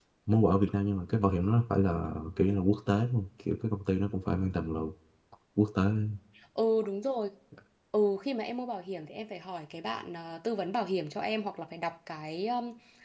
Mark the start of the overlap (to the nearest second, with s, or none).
none